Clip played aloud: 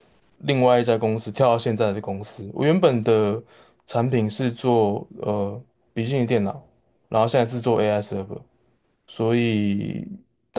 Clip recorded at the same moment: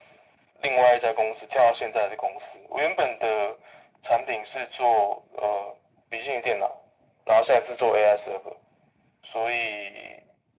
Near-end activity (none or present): none